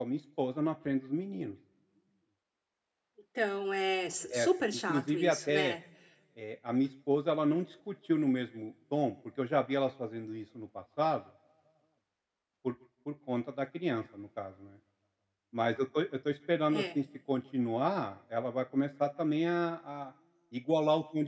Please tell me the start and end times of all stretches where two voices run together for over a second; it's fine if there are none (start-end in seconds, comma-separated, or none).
4.4-5.7